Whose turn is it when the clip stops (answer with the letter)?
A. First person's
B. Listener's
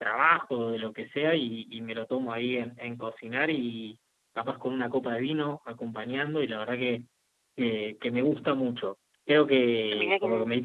A